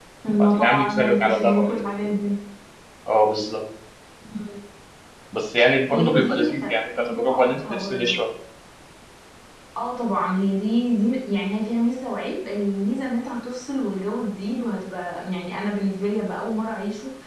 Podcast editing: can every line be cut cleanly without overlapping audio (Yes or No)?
No